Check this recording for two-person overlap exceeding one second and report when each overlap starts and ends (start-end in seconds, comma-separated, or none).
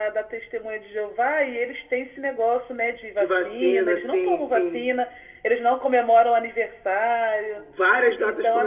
3.2-4.9